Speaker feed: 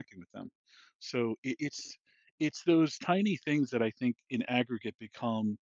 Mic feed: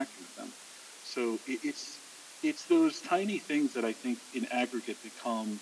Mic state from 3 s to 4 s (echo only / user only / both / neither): echo only